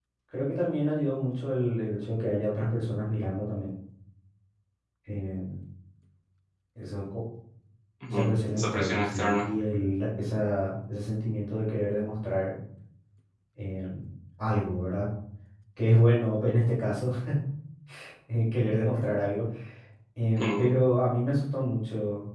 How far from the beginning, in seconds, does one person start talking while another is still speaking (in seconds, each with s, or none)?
8.1 s